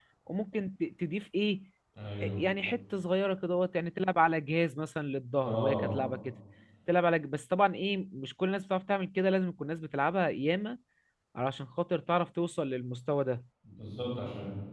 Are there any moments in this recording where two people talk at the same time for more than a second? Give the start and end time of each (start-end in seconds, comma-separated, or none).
none